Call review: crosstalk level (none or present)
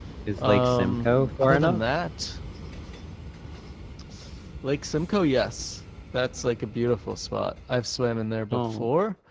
present